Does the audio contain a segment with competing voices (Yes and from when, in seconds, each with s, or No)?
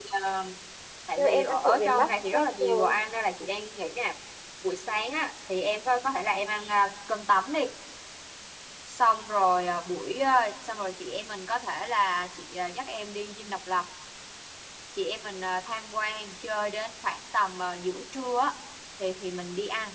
Yes, from 1.2 s